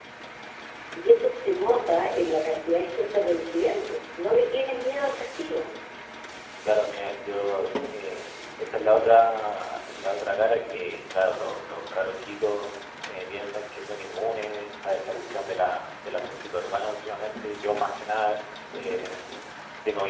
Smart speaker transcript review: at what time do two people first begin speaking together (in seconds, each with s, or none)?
none